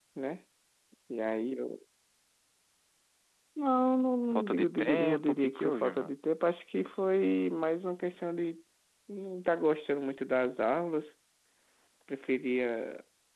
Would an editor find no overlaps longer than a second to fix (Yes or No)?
No